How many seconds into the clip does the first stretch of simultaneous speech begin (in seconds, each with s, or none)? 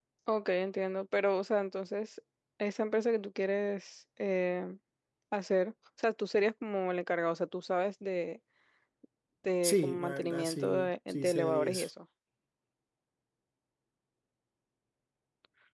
9.6 s